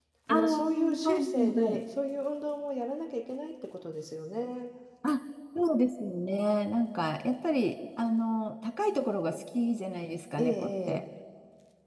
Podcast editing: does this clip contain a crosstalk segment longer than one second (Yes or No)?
Yes